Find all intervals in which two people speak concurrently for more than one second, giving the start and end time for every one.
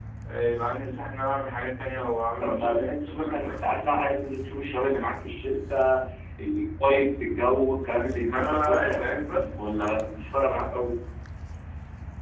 2.4-3.6, 8.2-9.6

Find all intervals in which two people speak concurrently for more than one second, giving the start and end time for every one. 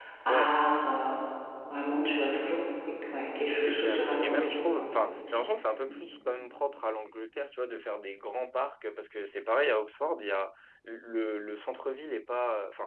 3.5-4.8

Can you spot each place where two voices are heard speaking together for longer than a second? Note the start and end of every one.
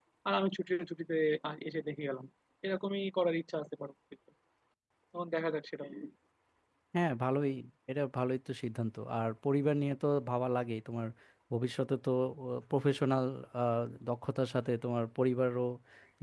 none

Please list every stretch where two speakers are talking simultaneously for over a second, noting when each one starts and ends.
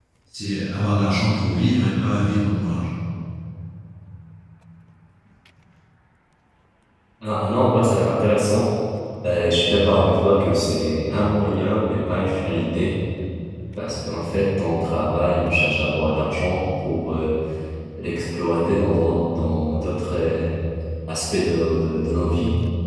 none

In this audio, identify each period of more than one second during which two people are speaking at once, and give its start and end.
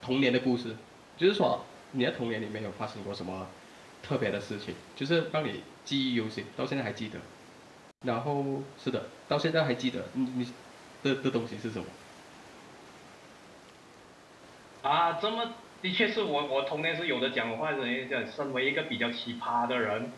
none

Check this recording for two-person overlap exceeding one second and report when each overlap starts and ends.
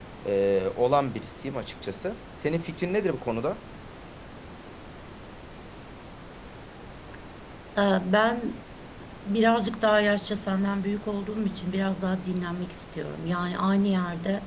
none

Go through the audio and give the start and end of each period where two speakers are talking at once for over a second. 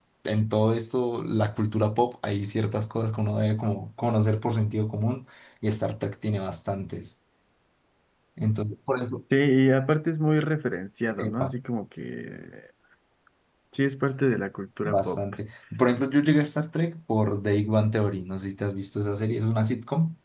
none

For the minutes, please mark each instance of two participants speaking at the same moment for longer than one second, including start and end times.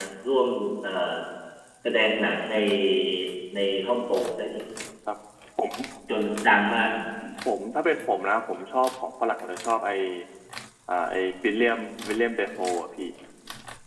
none

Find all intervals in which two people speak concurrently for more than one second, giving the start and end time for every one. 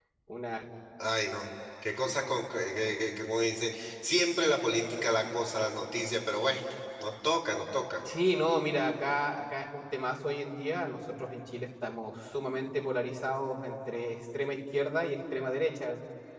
none

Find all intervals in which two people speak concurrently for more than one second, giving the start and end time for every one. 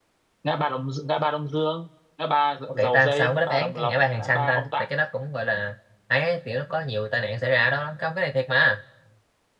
2.7-4.9

